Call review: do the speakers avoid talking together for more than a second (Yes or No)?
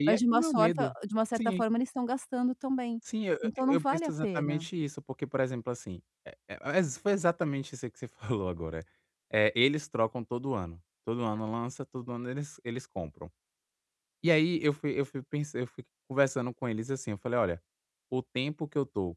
No